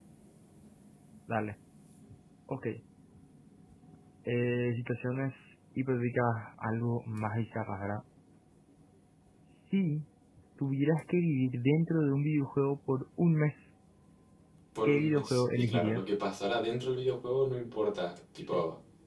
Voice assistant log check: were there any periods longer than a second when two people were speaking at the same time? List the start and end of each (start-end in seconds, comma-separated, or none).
14.8-16.1